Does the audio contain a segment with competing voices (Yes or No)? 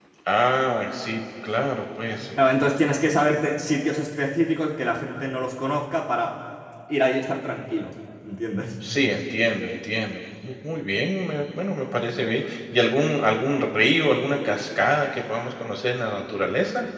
No